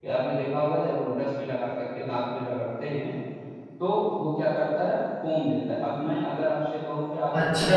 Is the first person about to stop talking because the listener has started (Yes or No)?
Yes